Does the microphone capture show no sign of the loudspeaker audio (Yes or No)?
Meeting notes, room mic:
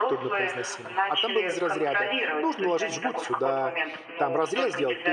No